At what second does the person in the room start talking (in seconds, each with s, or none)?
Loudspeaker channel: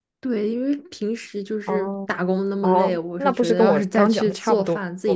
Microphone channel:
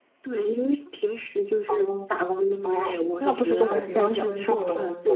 3.8 s